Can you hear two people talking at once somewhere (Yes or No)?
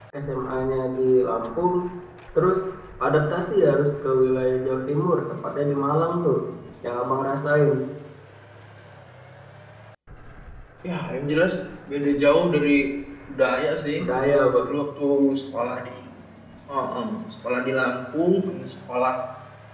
No